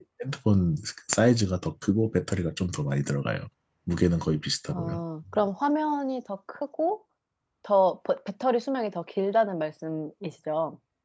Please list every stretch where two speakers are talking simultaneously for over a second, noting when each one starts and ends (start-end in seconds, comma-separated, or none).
none